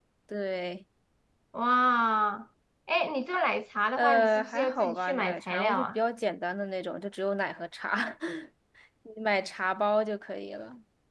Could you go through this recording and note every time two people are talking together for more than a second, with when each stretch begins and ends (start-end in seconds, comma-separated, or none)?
4.0-6.0